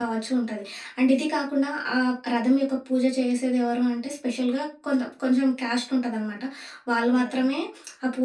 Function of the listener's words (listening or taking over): listening